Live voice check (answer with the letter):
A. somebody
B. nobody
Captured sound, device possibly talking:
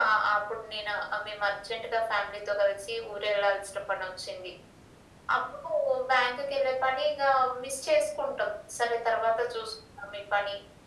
B